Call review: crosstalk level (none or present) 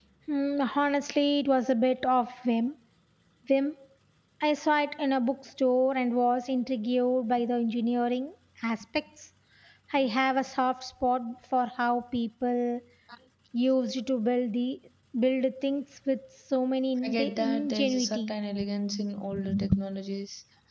present